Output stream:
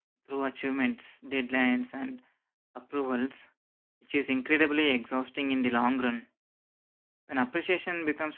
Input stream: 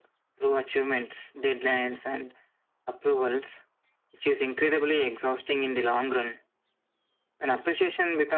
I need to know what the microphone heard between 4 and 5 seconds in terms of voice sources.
echo only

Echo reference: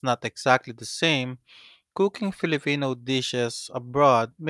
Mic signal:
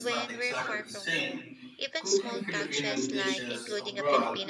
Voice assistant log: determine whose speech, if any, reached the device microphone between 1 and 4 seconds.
both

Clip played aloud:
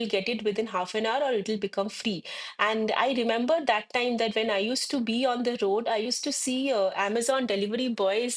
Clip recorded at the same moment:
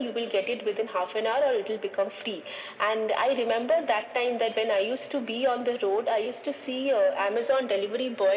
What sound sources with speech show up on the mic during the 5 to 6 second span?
echo only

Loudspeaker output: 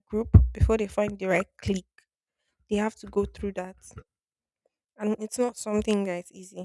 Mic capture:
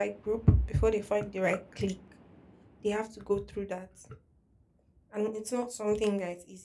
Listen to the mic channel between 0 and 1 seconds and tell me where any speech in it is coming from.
echo only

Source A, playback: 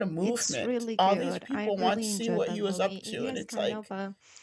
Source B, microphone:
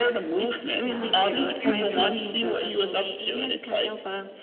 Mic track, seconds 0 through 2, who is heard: both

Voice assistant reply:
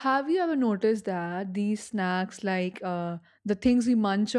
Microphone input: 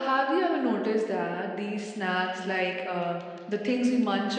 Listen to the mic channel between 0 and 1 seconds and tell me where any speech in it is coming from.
echo only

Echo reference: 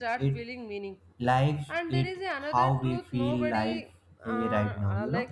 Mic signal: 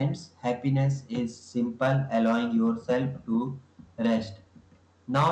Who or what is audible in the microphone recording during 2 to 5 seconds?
user only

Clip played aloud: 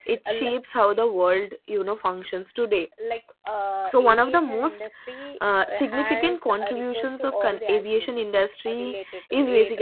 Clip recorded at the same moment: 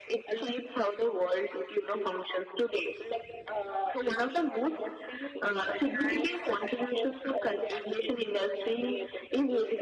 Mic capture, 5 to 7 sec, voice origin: echo only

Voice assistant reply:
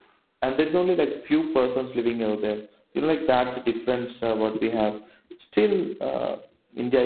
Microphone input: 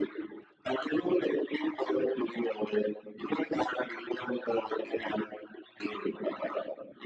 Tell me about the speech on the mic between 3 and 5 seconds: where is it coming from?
echo only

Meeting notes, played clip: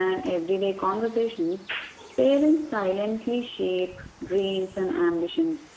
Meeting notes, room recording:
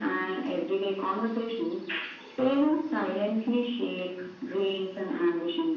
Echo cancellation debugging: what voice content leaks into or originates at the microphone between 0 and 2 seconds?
echo only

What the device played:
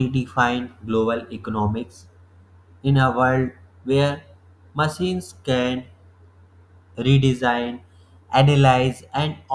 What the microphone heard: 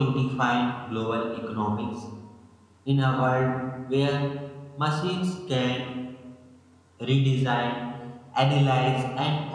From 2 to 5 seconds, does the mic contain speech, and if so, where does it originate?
echo only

